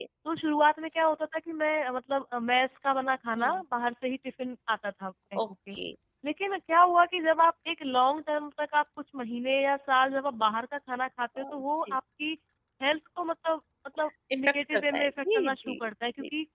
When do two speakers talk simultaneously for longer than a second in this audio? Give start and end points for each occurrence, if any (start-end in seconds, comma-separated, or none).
14.3-15.8